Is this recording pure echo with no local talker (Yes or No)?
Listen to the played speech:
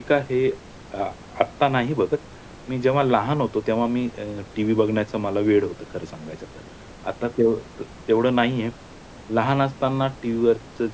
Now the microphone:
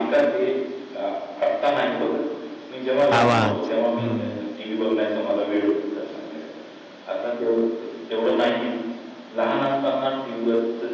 No